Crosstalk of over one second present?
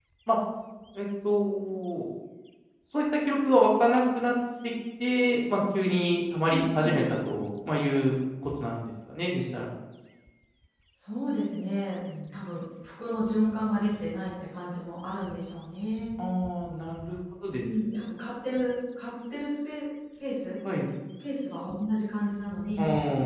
No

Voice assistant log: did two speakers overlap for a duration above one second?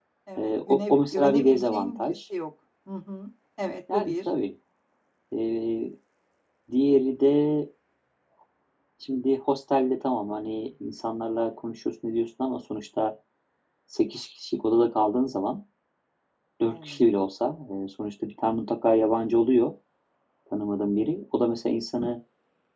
Yes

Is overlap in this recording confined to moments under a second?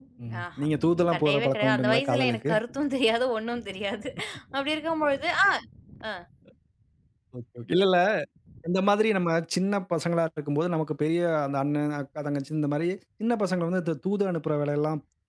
No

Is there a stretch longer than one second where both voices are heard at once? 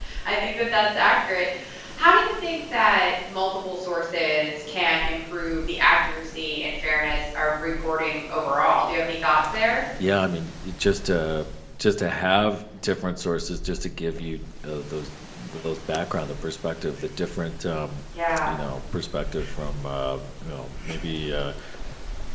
No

